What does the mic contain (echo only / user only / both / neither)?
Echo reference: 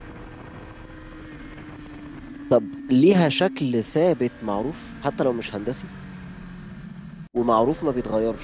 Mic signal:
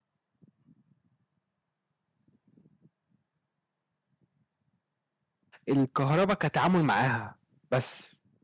user only